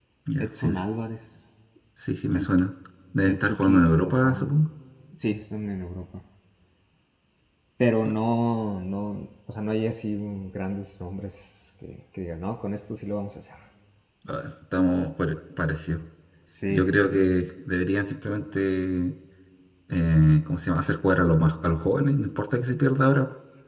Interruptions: present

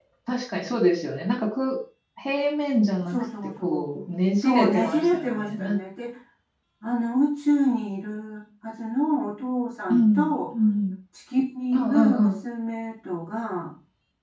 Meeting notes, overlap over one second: present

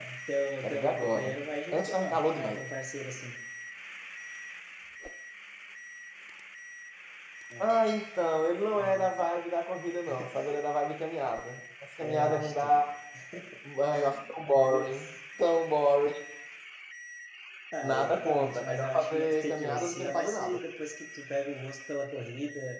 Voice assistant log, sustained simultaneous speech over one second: present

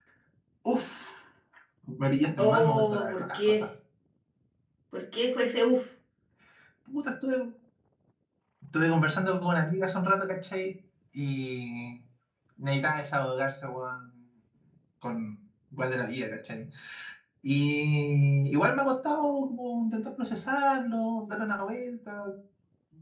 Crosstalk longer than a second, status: present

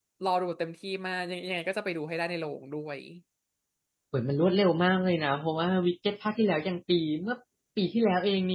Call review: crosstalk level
none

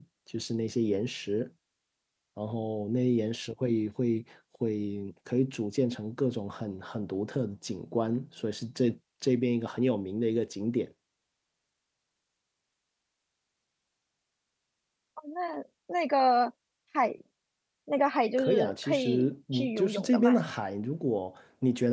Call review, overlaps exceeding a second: present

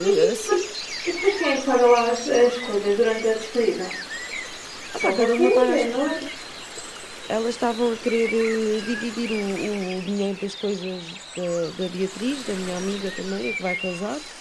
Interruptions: present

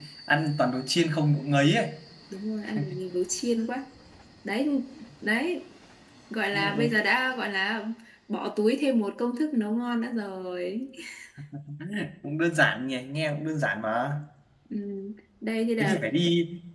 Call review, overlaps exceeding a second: none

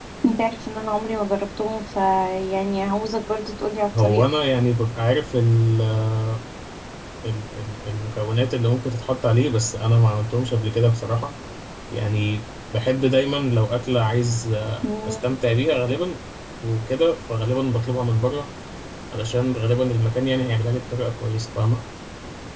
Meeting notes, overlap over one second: none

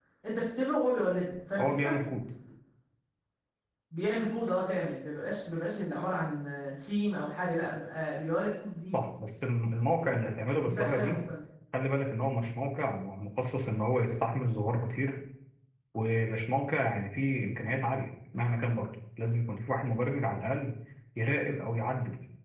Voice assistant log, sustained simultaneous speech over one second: none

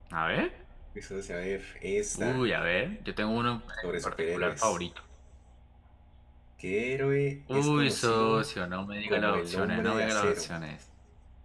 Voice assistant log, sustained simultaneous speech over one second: present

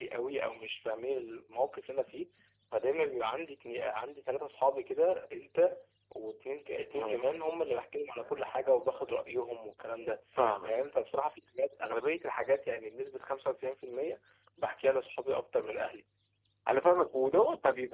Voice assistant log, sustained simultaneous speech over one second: none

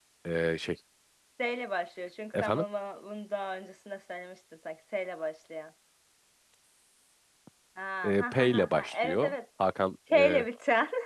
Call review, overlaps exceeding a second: present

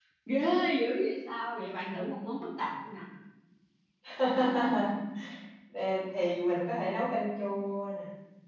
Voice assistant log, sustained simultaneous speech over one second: none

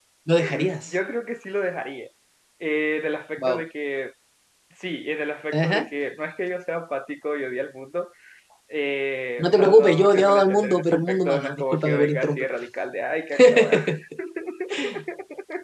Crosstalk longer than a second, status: present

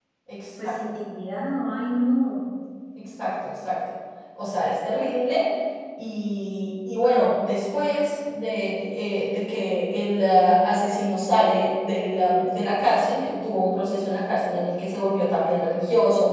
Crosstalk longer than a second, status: none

